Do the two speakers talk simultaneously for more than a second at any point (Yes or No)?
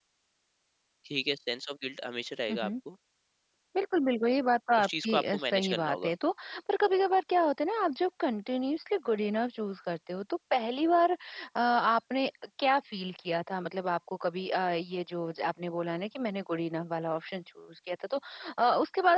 Yes